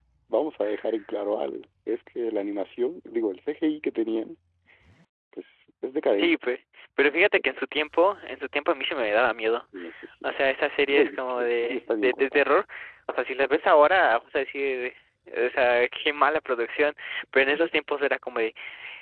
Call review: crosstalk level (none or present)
present